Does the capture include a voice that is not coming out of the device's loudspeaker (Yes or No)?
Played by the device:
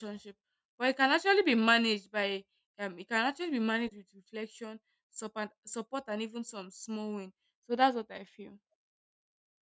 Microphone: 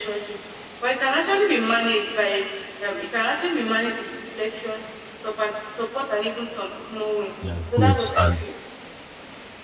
Yes